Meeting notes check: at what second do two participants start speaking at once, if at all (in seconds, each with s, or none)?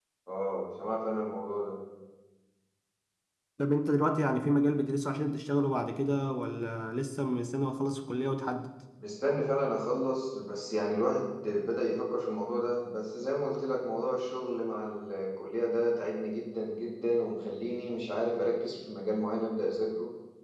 none